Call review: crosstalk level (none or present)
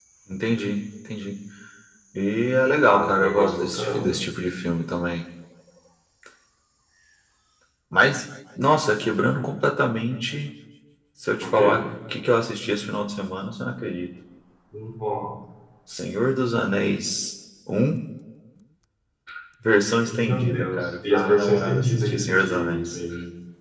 present